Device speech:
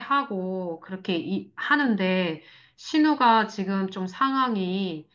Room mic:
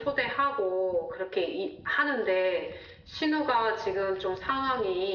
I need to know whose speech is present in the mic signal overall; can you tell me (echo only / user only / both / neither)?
echo only